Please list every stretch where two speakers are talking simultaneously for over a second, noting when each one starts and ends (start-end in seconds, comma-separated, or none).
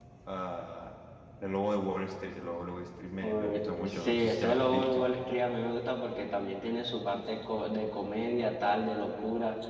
3.2-5.0